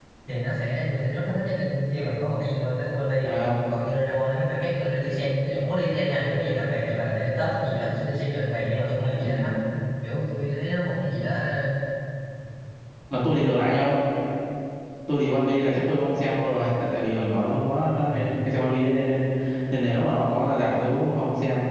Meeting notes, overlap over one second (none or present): none